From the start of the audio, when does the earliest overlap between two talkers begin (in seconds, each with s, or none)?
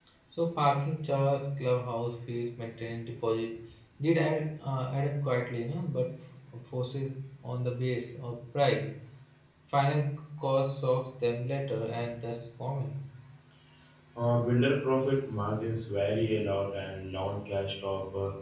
none